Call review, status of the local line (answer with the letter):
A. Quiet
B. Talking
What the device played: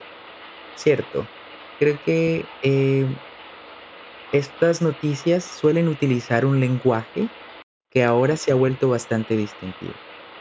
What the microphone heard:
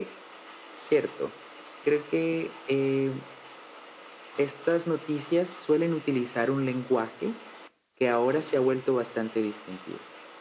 A